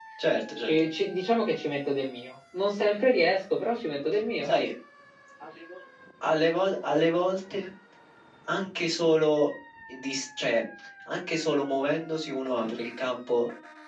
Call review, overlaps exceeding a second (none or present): none